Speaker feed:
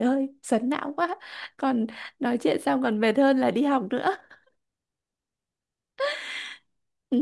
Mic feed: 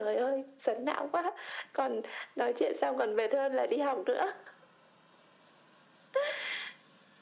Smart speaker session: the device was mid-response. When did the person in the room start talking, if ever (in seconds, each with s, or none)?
none